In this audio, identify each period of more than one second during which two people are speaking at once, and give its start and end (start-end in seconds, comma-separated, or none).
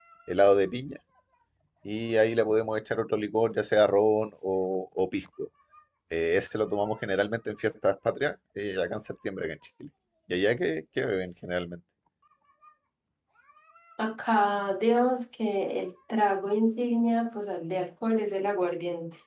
none